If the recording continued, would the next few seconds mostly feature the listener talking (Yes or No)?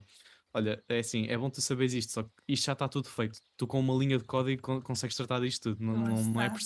No